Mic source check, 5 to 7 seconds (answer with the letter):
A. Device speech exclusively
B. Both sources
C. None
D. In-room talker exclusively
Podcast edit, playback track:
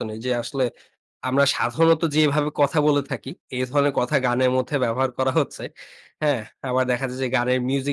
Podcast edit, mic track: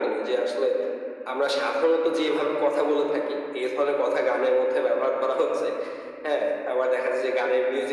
A